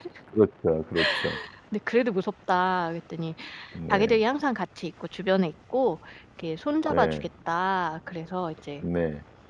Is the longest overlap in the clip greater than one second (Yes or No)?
No